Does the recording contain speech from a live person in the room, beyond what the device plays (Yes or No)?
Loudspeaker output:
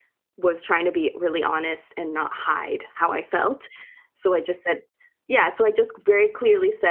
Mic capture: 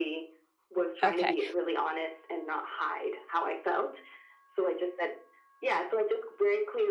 Yes